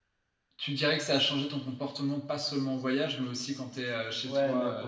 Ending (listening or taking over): taking over